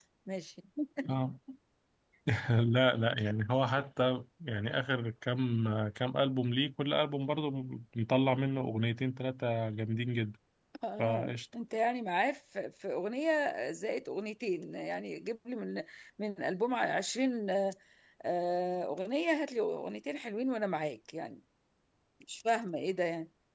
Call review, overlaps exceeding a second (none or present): none